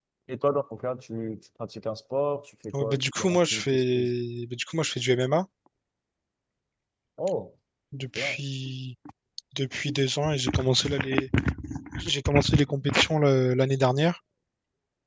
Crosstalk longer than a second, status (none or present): present